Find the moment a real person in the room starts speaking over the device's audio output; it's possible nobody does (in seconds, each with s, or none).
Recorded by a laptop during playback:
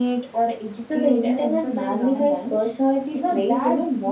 0.8 s